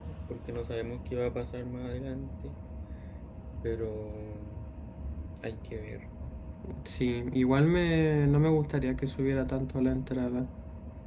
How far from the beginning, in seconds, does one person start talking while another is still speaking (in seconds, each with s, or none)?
none